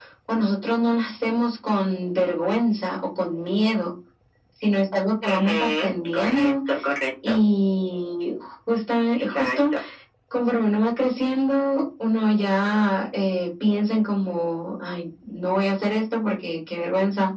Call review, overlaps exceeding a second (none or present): present